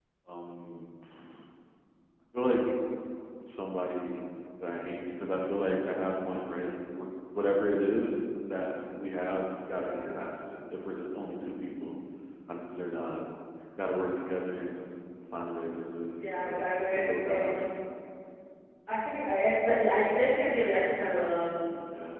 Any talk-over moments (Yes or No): Yes